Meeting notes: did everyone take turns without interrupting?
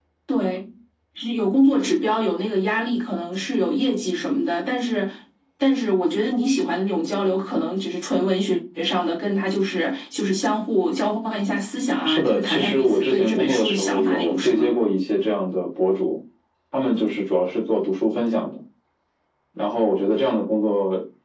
No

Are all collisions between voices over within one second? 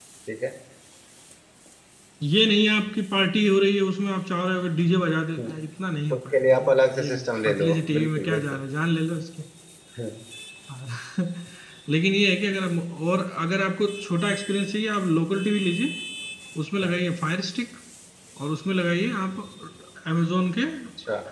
No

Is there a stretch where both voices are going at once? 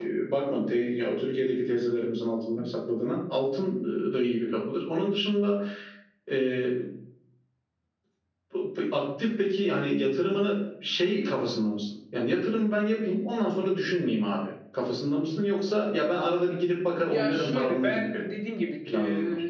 Yes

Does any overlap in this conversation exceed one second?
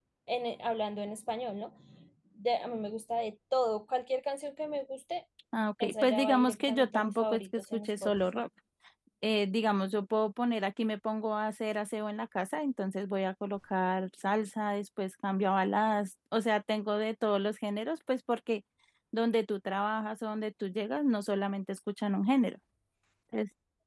Yes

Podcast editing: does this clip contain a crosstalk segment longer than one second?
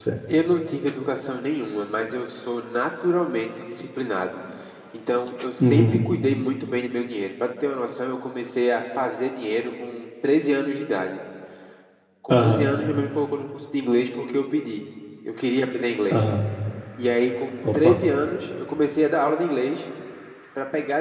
No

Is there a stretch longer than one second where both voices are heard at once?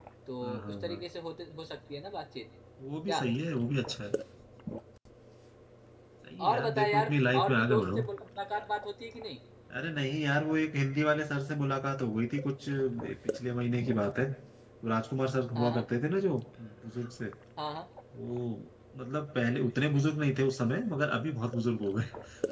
Yes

